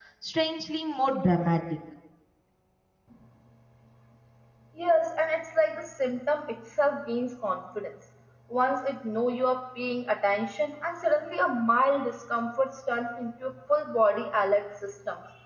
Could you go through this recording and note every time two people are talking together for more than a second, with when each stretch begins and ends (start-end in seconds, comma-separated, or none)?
none